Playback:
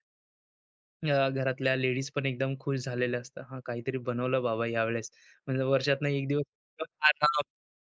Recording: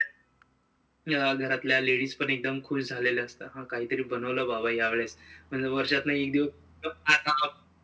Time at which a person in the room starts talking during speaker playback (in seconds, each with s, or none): none